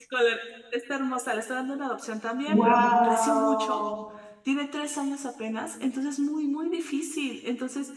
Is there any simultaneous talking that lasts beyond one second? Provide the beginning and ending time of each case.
2.5-3.8

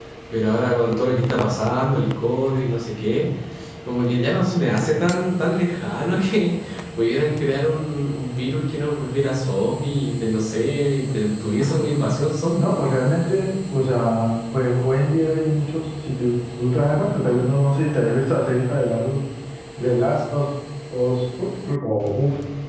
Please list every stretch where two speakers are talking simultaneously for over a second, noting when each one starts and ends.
none

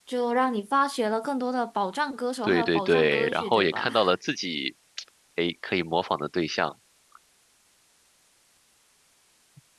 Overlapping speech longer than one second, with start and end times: 2.4-4.0

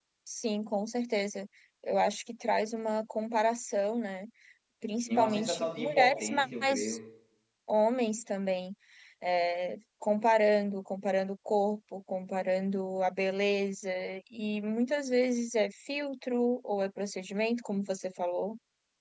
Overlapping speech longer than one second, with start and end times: 5.1-7.0

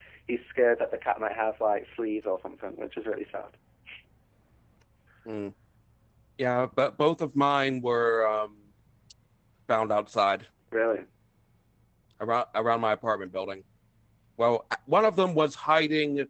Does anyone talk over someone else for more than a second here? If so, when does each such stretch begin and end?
none

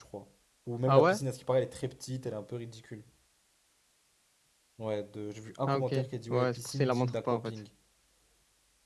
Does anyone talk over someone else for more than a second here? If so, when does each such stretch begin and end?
6.3-7.5

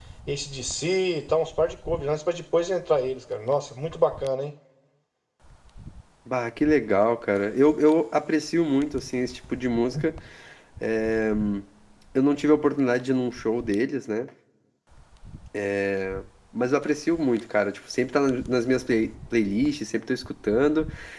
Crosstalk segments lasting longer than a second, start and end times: none

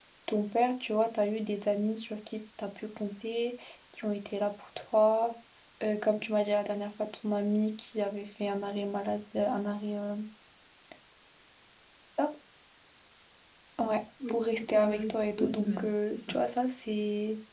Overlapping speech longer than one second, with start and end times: 14.3-16.4

